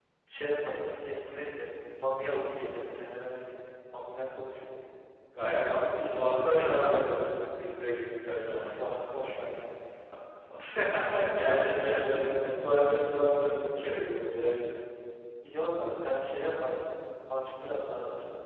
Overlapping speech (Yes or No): Yes